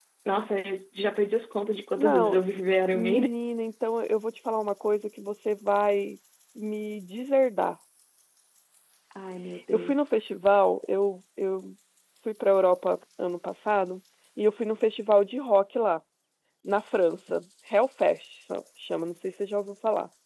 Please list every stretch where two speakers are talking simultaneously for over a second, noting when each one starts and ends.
none

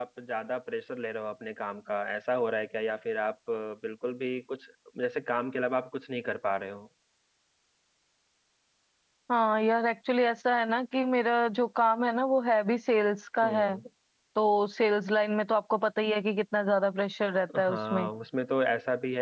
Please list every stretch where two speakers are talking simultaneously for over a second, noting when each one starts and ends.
none

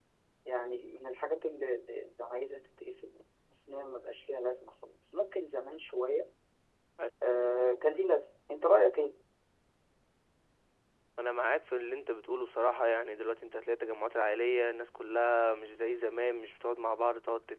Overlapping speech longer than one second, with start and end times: none

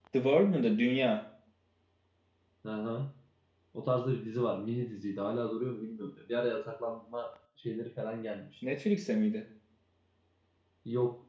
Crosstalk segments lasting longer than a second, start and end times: none

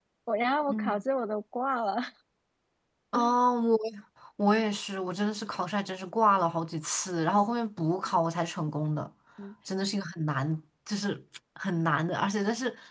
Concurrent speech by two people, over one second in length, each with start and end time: none

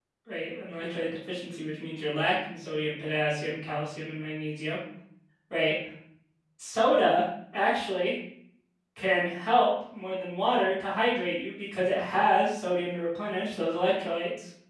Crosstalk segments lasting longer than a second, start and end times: none

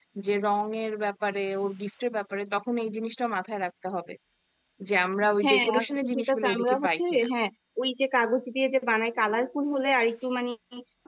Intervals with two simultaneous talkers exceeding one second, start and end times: 5.4-7.3

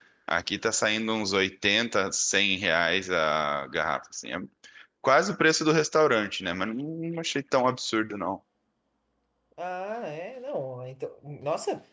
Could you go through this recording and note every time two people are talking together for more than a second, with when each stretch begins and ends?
none

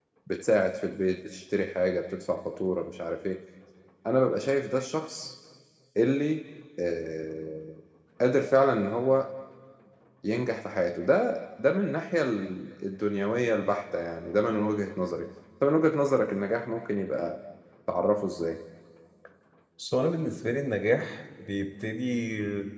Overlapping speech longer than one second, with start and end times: none

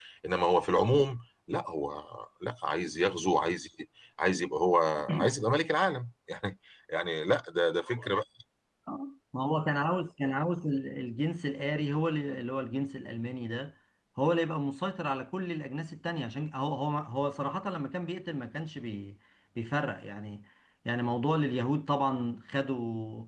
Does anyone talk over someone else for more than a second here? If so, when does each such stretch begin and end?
none

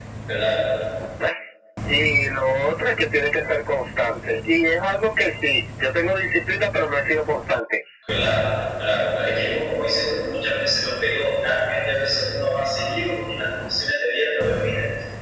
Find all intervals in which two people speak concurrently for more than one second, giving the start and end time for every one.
none

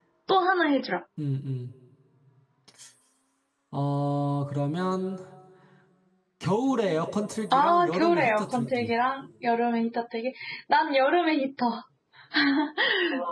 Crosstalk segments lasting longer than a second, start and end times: 7.5-8.9

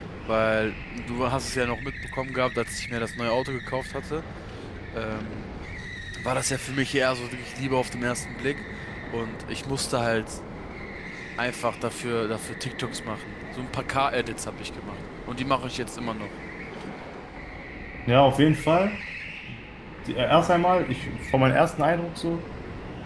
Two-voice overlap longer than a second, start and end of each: none

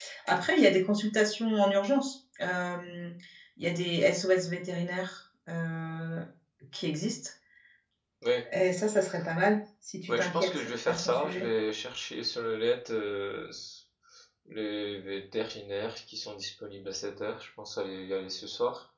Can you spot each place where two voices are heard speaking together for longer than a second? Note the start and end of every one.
10.1-11.5

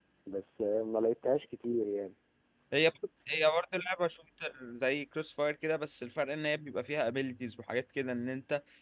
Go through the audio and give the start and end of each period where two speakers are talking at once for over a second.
none

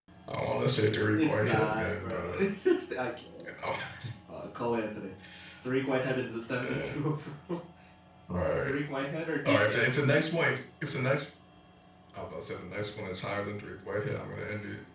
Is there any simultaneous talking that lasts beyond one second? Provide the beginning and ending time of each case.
1.1-2.5

